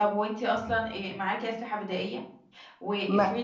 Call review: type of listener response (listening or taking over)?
listening